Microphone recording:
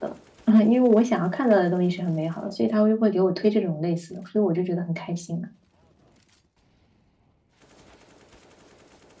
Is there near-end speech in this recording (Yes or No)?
Yes